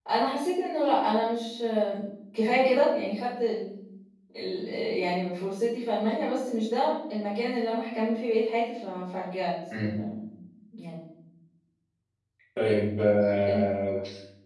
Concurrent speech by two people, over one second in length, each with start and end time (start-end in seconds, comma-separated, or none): none